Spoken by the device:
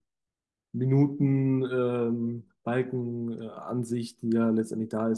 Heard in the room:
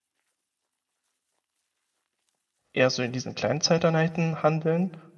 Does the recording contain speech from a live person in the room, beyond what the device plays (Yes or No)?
Yes